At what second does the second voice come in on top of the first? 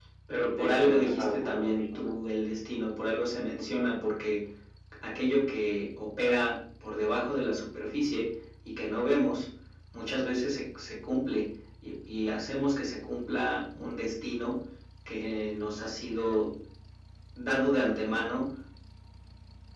0.6 s

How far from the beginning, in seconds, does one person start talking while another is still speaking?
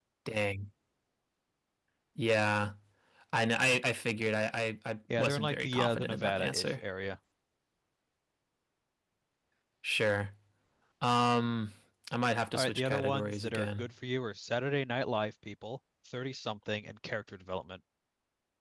5.2 s

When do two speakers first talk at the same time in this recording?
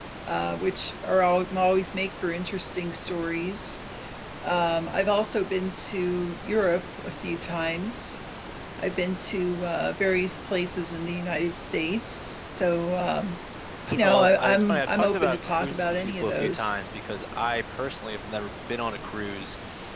14.0 s

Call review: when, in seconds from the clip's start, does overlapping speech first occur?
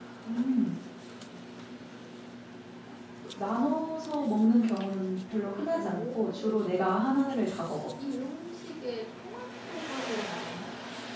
5.7 s

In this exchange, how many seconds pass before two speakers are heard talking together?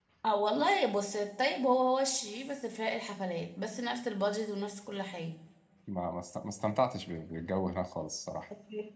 none

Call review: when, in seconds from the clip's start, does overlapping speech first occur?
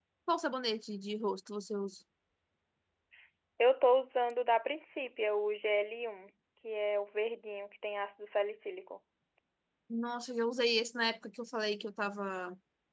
none

